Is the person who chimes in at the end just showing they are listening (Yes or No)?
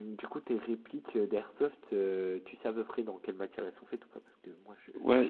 No